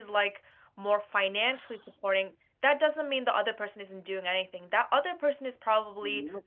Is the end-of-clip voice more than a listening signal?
No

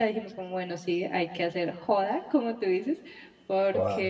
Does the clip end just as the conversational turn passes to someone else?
No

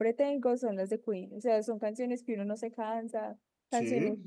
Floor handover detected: No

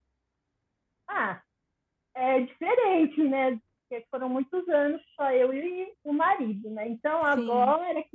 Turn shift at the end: No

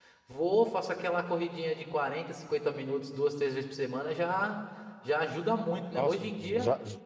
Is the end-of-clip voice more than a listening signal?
Yes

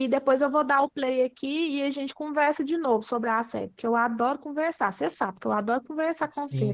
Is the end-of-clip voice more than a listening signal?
Yes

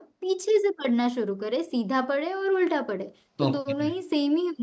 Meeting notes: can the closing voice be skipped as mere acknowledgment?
Yes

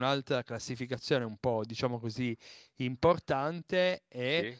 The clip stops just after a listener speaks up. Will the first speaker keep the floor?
Yes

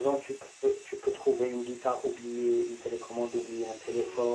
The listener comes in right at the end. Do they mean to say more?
Yes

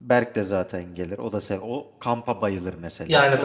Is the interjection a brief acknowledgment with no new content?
No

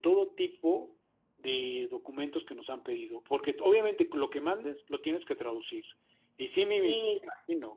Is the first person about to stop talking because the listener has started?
No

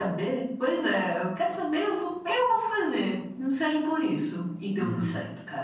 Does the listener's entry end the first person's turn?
Yes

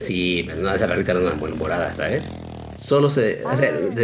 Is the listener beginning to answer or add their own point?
No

